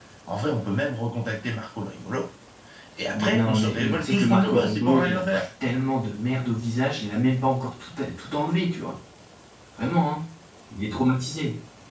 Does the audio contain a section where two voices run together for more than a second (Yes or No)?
Yes